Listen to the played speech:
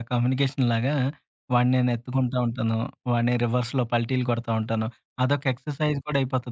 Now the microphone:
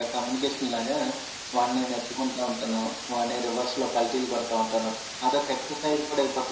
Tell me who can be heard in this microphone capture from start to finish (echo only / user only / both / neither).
echo only